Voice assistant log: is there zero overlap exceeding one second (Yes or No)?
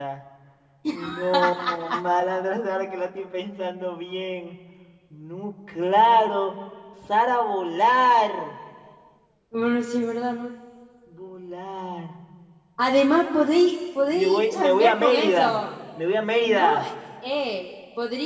No